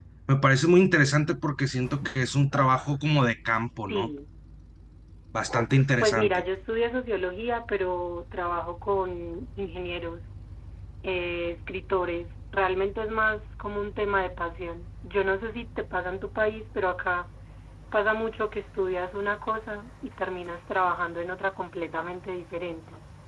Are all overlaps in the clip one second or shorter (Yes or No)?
Yes